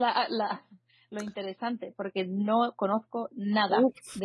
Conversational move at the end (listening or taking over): taking over